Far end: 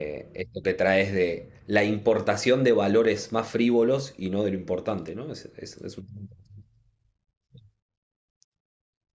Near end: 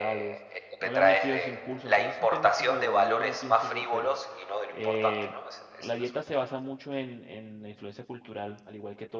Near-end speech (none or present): present